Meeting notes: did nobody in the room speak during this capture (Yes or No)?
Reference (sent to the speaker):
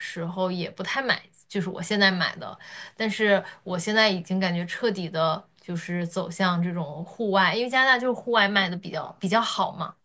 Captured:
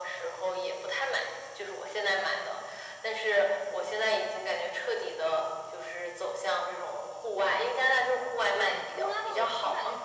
No